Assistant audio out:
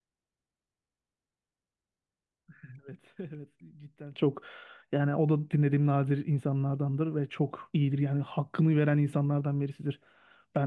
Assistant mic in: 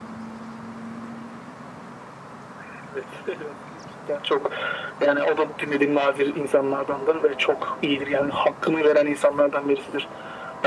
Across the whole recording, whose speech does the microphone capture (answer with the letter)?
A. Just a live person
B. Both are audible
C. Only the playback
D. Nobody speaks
C